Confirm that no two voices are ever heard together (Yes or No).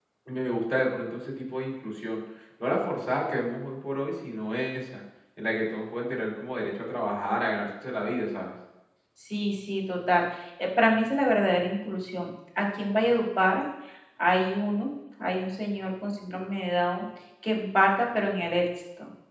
Yes